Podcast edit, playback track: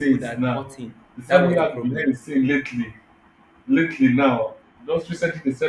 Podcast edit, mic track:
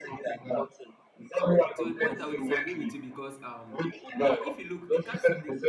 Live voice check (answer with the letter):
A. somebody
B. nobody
A